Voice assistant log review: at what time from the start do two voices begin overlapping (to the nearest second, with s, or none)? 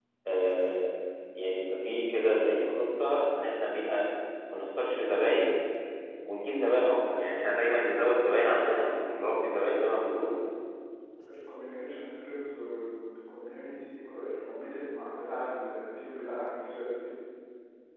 none